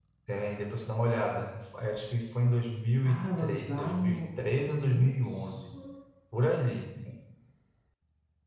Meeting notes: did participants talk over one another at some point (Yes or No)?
Yes